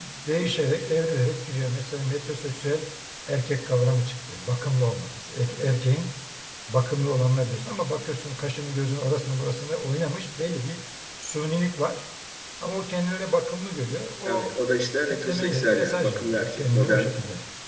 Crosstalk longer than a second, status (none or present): present